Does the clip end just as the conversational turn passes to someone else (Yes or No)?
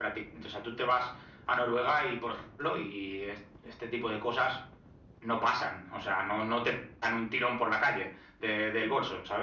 No